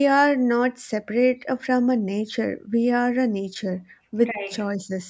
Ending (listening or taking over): listening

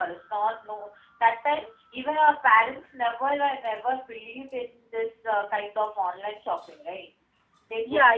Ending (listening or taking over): taking over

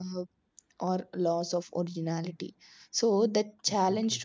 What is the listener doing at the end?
listening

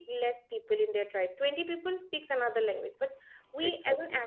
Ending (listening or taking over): listening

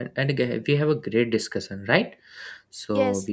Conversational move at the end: taking over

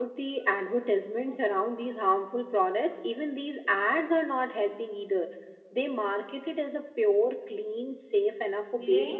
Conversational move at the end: taking over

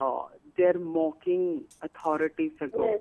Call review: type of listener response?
taking over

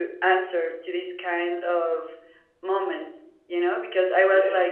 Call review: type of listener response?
listening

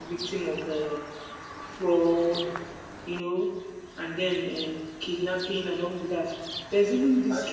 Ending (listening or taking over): listening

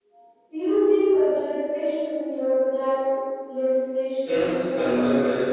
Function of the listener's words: taking over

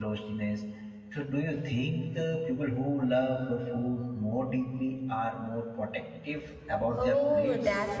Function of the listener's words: taking over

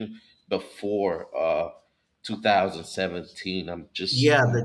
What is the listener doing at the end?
taking over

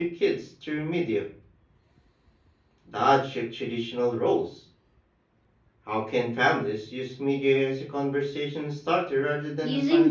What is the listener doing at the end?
taking over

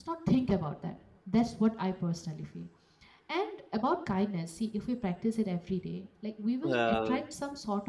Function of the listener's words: listening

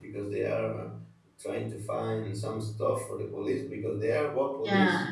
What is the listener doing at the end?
listening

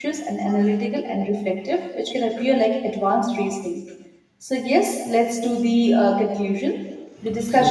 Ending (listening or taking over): listening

